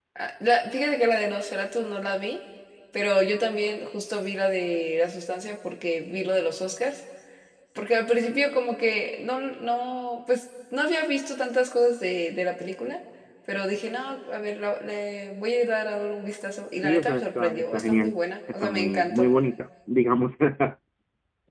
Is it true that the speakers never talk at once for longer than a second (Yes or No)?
No